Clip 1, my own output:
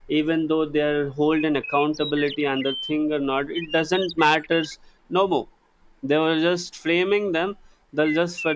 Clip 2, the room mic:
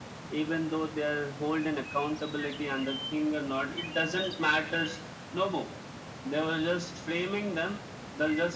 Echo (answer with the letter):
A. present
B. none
A